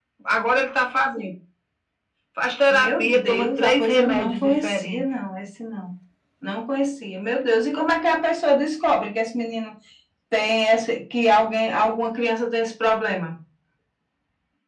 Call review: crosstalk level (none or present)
present